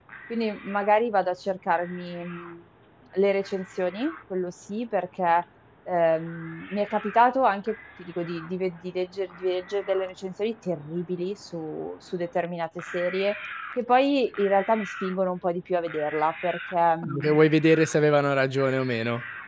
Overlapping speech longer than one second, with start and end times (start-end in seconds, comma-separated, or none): none